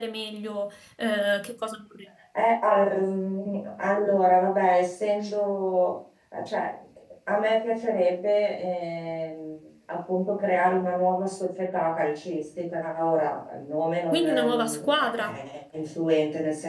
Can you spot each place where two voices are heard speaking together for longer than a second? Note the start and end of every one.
14.1-15.4

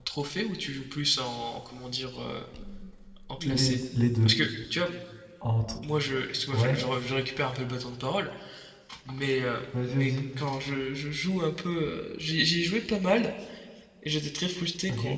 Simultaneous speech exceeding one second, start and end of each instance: none

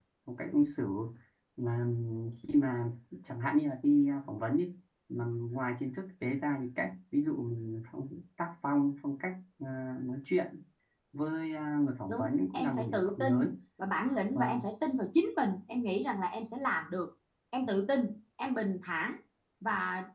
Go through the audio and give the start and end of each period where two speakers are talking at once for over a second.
12.1-13.5

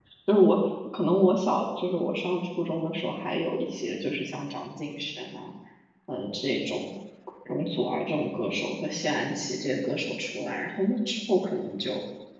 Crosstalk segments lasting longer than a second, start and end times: none

